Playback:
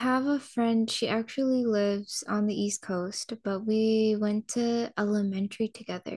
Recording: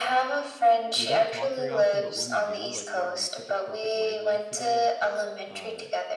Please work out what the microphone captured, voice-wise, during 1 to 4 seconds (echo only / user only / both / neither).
both